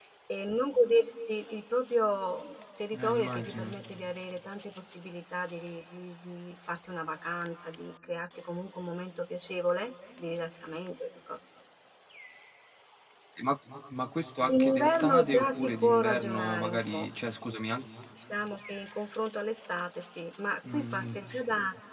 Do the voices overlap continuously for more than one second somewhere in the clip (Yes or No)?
Yes